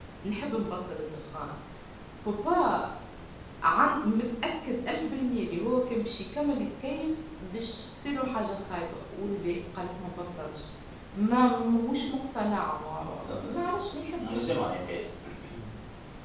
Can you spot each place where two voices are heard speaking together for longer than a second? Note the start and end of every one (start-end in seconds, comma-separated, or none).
13.3-14.5